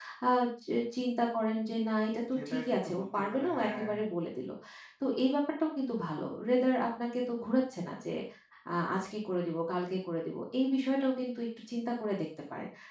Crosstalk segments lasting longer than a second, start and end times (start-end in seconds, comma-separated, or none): 2.4-3.9